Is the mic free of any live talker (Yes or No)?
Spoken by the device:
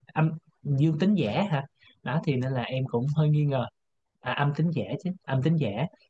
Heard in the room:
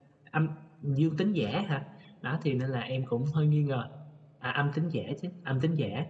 Yes